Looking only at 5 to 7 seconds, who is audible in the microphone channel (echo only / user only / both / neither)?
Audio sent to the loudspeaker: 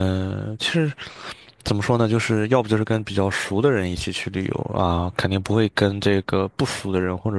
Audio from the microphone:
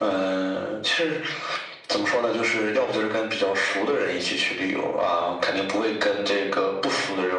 echo only